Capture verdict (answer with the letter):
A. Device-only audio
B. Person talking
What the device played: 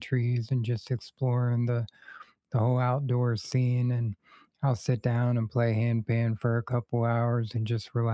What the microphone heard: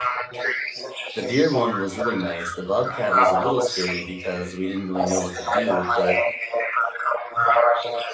B